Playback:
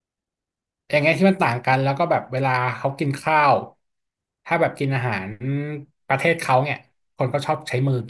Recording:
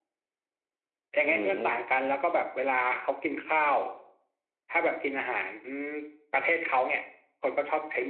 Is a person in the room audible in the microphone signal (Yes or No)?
Yes